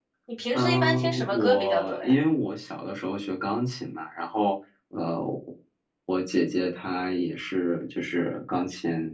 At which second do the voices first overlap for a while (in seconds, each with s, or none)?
0.5 s